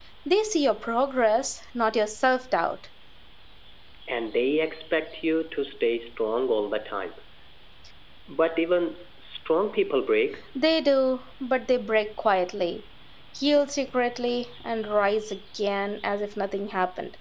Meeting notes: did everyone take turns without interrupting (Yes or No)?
Yes